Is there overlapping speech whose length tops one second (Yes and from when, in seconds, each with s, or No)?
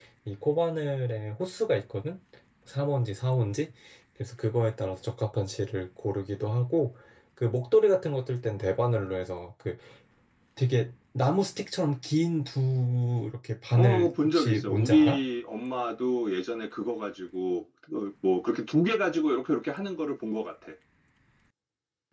Yes, from 13.8 s